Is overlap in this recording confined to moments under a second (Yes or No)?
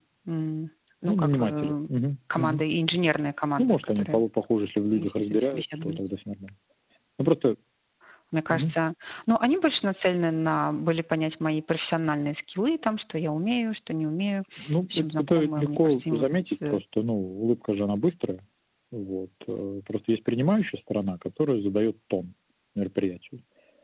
No